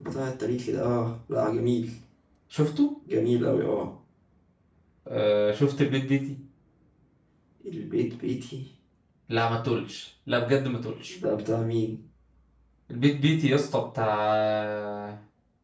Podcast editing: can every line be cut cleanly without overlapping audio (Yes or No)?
Yes